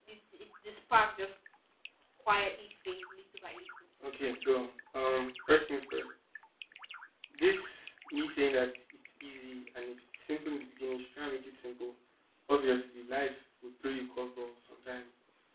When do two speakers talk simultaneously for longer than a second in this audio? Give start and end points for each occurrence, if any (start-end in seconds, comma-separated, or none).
none